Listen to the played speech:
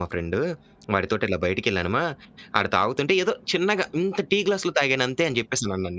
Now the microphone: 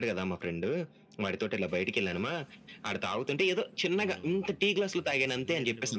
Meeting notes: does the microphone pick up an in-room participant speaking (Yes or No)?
Yes